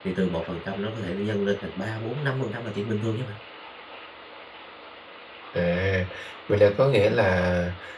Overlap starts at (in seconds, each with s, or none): none